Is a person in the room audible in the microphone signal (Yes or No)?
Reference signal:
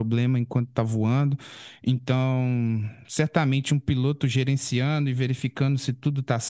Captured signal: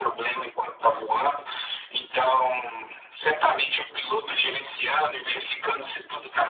No